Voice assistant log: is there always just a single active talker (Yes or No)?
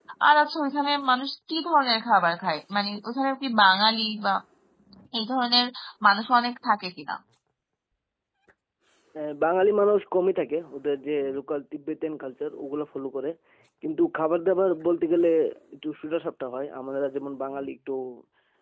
Yes